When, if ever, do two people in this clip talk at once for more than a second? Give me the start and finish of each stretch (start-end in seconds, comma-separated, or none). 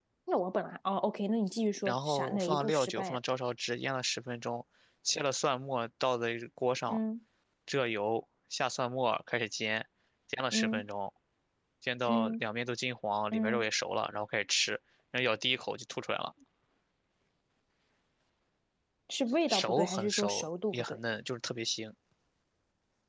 1.8-3.2, 19.5-21.0